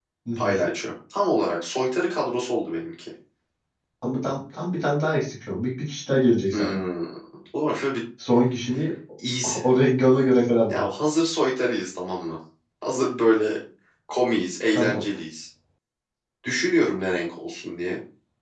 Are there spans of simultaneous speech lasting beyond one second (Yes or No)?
No